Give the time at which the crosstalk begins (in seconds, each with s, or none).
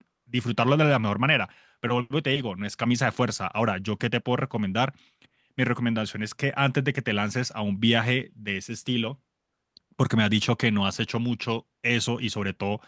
none